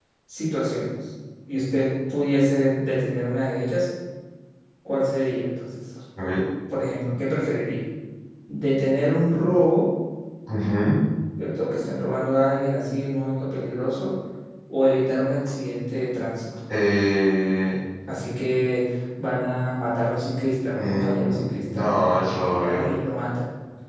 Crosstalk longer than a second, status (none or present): present